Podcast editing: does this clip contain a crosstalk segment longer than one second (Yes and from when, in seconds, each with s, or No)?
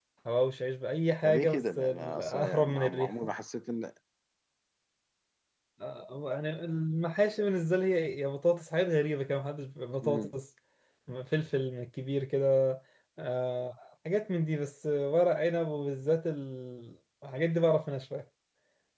Yes, from 1.2 s